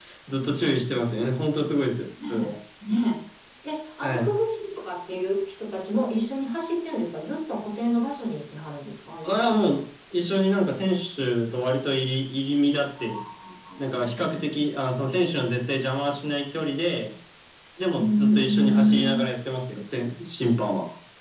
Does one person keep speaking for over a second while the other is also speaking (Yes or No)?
Yes